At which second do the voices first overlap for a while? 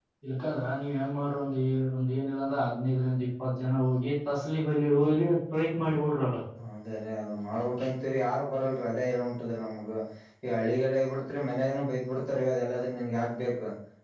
none

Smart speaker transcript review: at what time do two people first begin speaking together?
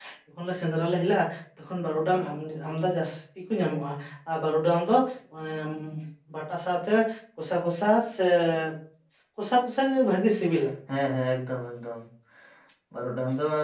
none

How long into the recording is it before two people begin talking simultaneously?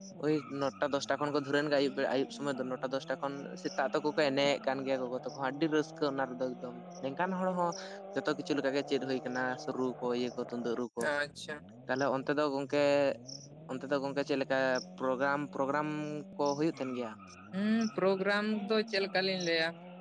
none

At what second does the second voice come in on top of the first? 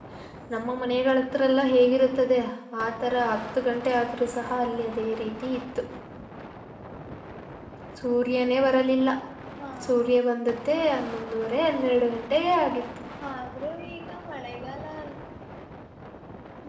none

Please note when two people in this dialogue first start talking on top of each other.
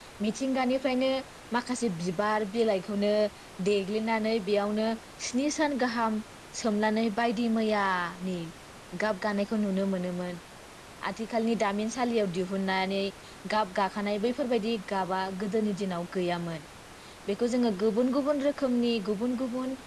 none

